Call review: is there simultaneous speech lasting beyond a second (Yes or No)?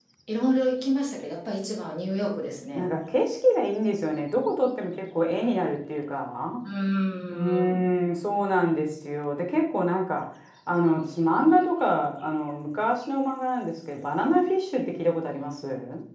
No